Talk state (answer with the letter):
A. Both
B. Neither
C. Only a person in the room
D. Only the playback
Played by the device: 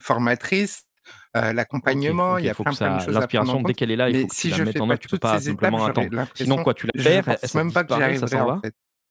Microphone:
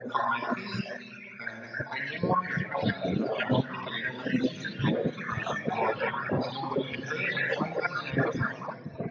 D